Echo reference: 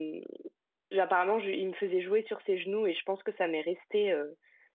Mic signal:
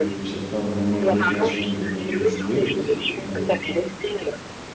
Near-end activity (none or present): present